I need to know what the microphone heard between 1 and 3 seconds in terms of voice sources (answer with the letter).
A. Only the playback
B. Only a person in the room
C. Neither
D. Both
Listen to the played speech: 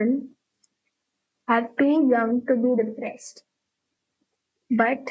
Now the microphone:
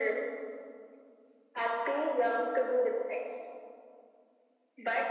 A